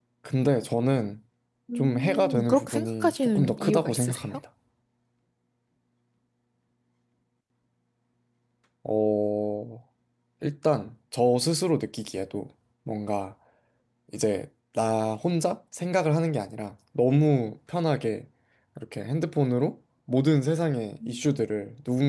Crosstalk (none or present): present